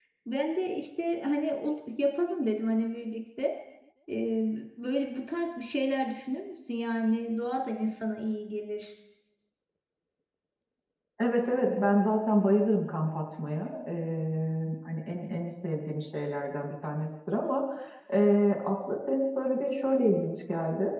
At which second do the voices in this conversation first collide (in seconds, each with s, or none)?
none